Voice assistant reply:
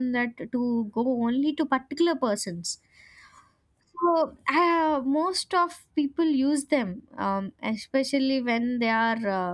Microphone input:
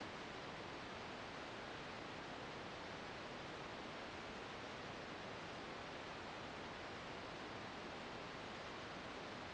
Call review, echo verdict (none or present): none